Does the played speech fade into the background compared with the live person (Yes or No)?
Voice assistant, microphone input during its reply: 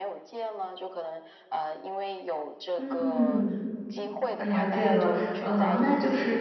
Yes